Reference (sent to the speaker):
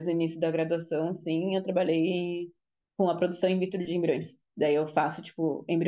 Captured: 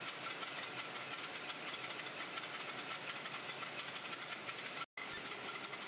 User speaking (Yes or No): No